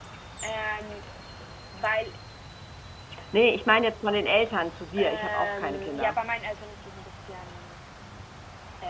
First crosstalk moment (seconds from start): 5.0 s

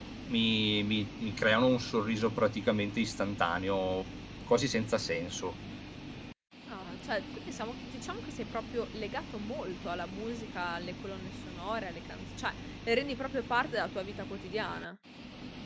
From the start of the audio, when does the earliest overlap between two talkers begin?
none

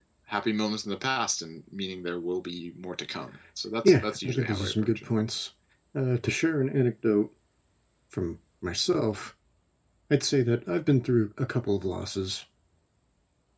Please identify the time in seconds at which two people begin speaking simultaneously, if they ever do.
3.8 s

